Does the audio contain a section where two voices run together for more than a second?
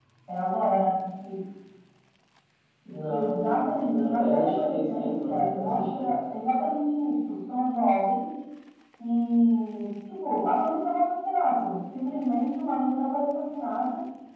Yes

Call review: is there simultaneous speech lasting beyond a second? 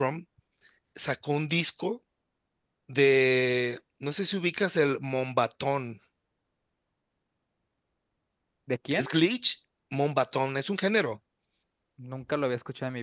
No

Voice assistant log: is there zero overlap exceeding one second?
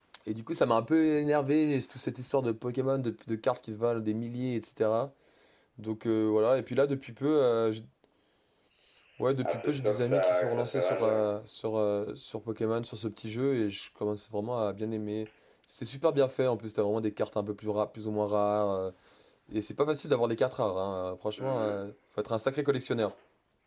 No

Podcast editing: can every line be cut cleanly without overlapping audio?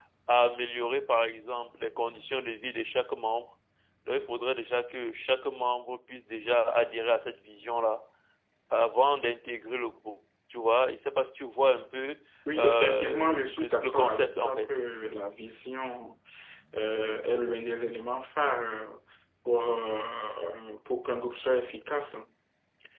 No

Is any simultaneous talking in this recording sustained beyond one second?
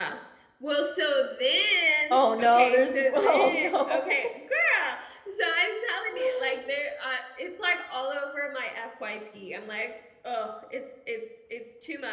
Yes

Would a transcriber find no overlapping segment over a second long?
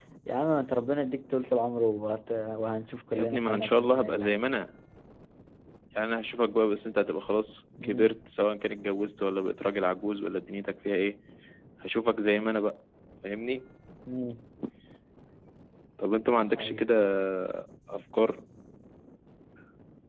No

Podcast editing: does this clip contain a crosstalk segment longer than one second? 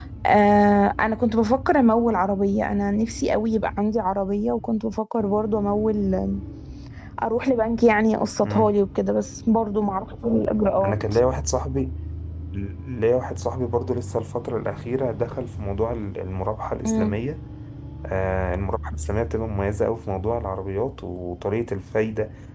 No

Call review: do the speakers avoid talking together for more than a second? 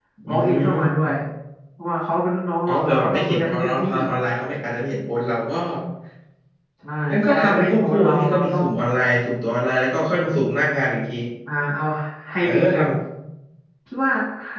No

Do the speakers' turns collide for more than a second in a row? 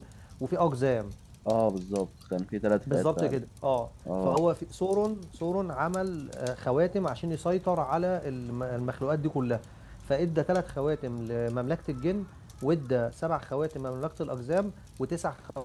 No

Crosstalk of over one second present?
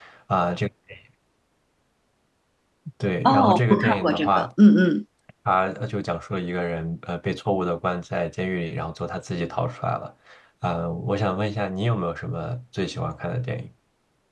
Yes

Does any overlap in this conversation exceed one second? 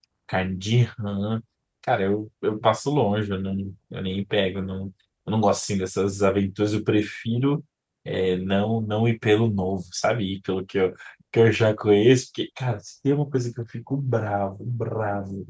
No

